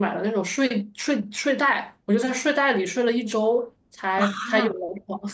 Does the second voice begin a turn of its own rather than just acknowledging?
No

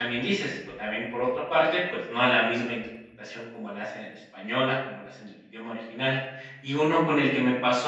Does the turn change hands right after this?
No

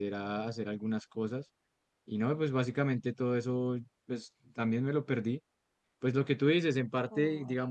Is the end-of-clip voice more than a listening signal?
No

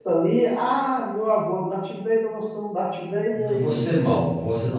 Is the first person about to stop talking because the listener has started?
Yes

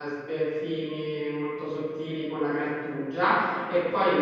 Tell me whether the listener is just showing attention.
Yes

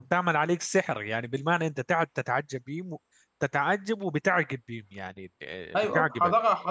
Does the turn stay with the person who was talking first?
No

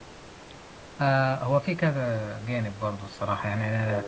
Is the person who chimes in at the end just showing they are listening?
Yes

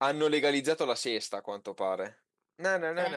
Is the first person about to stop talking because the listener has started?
Yes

